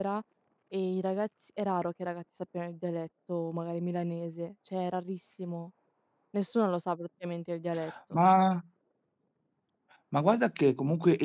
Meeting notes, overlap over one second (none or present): none